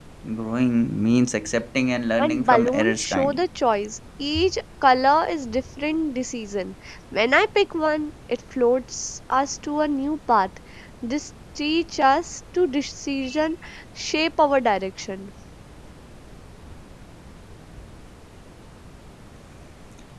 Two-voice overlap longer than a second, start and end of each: 2.2-3.4

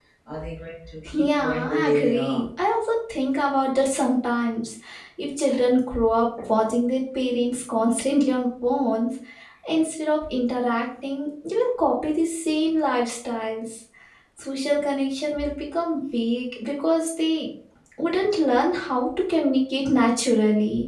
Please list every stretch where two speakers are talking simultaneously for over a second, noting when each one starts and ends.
1.1-2.5

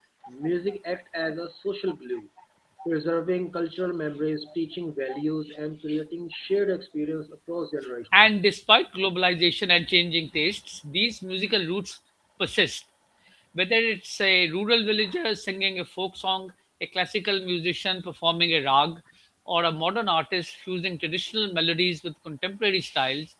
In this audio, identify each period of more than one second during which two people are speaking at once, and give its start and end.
none

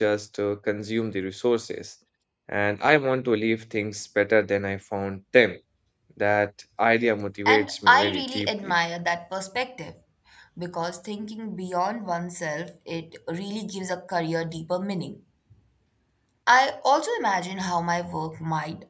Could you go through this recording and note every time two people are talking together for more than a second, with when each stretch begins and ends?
7.5-8.7

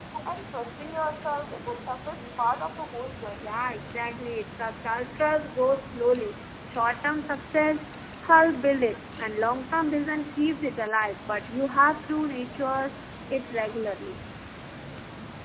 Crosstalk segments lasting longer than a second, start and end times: none

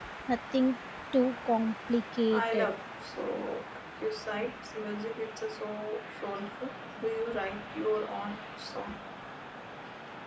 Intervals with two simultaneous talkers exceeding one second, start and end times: none

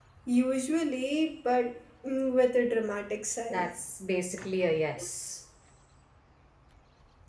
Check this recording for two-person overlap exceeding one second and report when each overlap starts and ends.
none

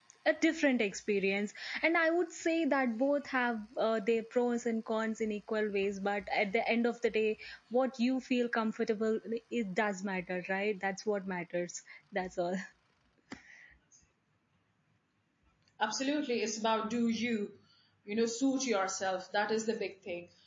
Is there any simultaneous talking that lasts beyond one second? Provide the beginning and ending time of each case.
none

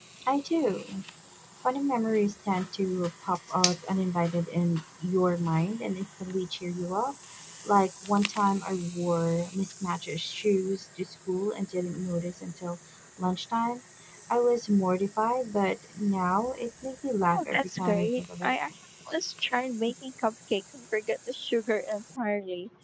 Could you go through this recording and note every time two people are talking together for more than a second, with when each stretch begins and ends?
17.3-18.5

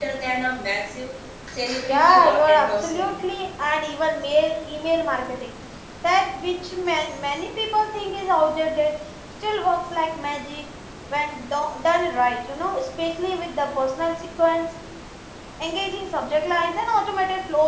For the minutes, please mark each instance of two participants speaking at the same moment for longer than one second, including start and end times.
1.9-3.1

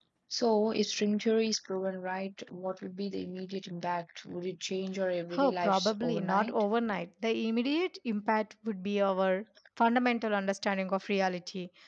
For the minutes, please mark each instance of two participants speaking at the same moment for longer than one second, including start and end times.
5.4-6.6

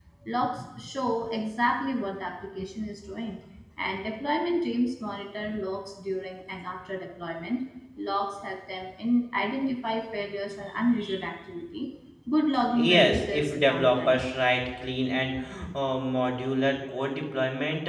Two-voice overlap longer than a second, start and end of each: 12.7-14.2

